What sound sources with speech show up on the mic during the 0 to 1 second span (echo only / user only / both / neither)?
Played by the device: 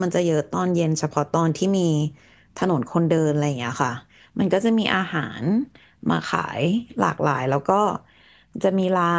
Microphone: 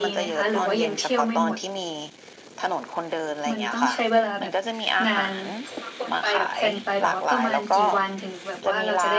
both